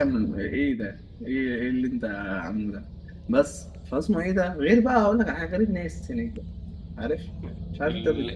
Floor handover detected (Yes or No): Yes